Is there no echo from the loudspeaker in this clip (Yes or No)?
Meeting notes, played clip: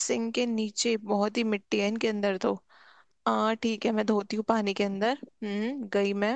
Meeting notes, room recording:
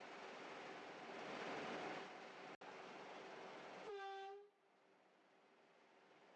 Yes